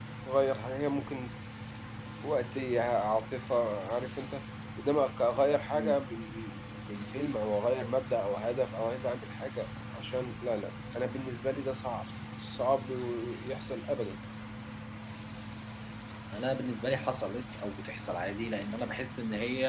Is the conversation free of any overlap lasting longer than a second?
Yes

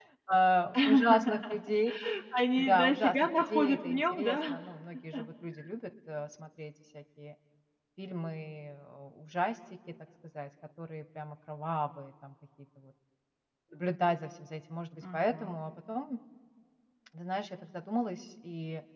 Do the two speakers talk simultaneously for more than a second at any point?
Yes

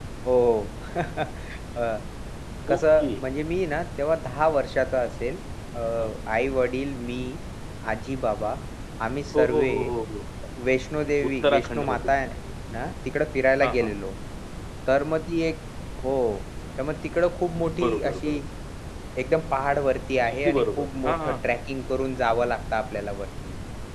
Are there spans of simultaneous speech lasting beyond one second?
Yes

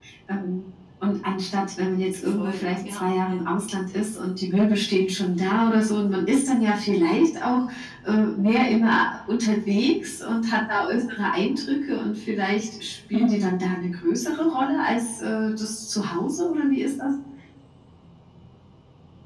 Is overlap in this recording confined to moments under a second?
No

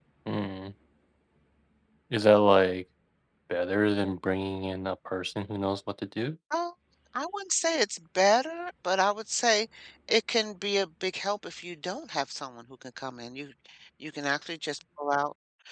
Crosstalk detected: No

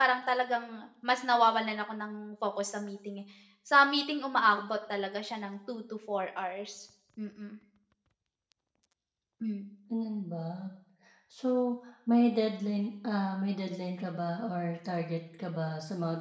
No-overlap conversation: Yes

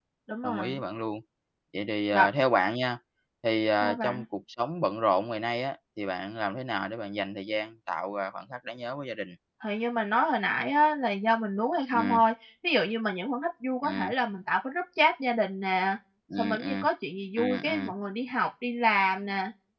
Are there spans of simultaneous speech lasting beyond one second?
No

